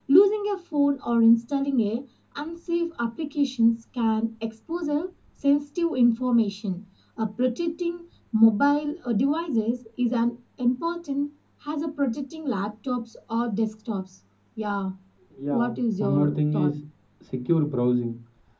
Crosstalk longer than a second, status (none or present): present